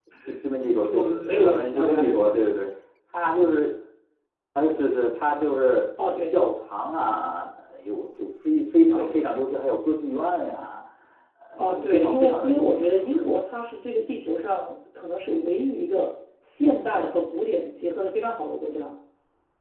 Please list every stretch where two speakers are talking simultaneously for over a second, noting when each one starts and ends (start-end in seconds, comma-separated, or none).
0.8-2.4, 11.6-13.3